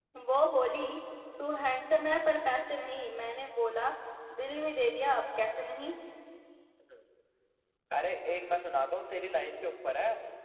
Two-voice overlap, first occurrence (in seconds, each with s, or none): none